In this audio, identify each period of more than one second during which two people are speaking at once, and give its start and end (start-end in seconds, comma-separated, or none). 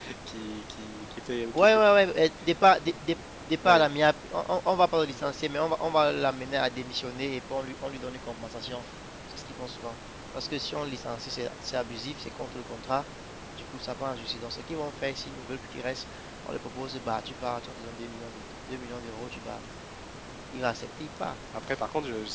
none